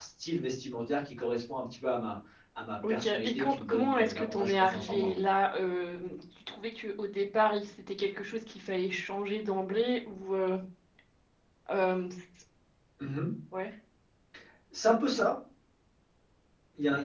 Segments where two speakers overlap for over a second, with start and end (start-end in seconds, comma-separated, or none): 2.9-5.2